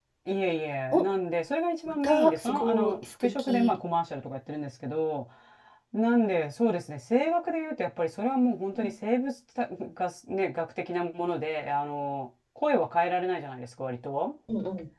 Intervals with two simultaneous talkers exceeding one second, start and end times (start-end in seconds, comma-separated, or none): 2.0-3.7